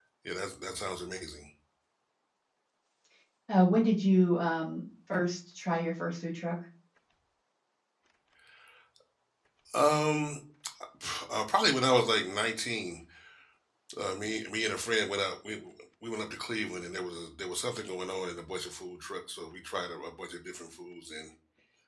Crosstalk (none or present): none